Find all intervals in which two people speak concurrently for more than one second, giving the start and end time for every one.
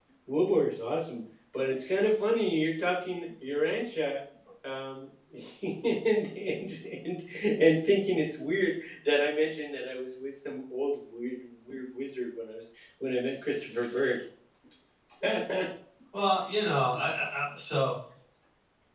none

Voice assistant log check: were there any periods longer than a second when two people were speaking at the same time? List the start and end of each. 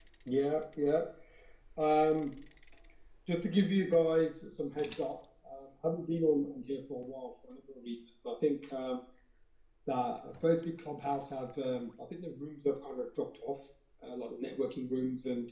none

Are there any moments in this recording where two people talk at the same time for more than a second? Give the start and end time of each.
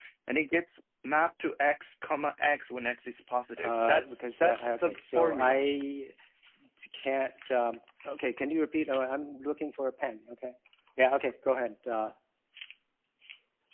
3.6-5.6

